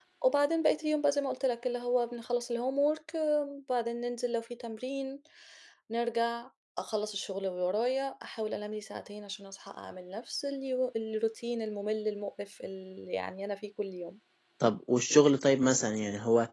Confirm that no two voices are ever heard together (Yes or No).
Yes